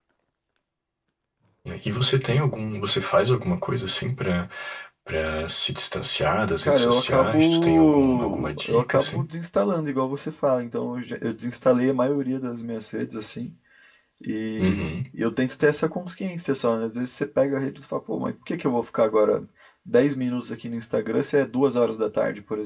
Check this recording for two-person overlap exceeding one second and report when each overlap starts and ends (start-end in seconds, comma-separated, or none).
6.6-9.2